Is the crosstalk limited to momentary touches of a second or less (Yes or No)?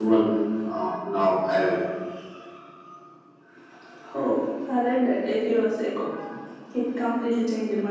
Yes